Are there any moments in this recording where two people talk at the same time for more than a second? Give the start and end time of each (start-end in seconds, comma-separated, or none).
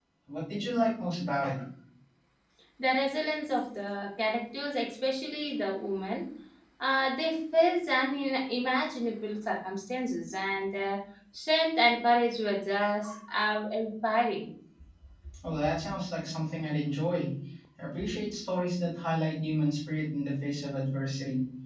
none